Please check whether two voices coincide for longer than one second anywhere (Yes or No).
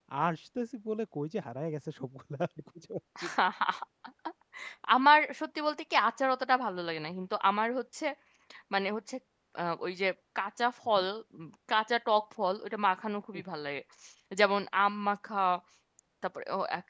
No